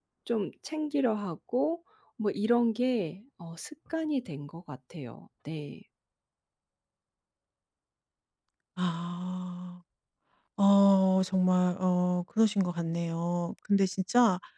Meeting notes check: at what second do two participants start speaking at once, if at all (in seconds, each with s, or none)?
none